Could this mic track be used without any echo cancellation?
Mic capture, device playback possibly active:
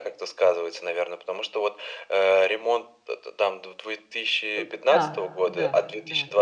No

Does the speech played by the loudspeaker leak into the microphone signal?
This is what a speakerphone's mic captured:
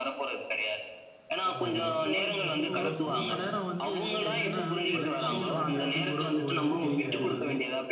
Yes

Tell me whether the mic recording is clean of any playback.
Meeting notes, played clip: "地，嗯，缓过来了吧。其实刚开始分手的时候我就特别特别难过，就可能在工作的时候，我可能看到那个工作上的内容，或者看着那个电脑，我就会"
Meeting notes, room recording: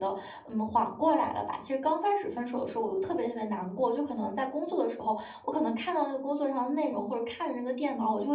No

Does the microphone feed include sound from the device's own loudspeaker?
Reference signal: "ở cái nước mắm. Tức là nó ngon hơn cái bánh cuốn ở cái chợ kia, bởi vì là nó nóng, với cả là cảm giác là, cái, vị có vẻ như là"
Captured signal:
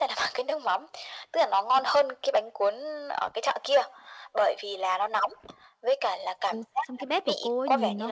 Yes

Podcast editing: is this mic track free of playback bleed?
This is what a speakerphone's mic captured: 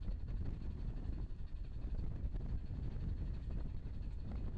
Yes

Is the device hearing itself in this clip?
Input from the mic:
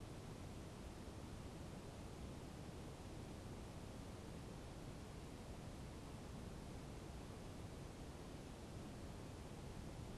No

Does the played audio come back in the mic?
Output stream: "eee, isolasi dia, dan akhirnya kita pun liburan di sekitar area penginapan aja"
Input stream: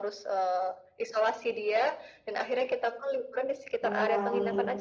Yes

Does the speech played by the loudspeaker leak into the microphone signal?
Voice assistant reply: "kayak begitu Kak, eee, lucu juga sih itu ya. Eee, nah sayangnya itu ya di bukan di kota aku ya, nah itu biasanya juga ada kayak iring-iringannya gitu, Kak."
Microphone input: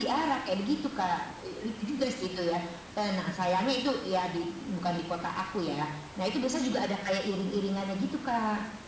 Yes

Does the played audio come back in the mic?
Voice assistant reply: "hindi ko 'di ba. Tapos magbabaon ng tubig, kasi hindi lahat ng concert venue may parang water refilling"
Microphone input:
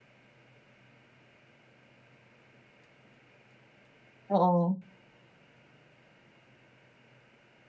No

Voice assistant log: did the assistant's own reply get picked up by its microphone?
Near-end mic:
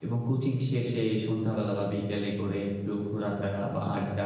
No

